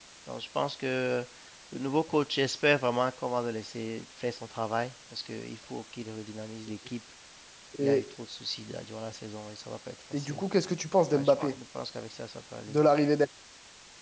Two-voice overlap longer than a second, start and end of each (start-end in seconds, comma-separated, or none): none